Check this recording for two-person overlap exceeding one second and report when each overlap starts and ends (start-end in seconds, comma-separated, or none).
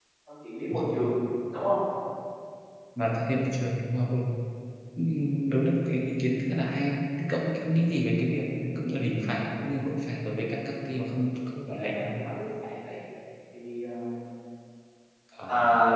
none